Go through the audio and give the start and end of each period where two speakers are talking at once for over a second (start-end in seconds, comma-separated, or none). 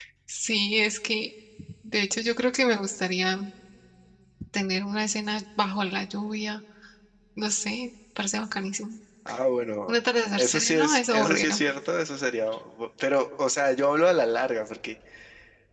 10.3-11.6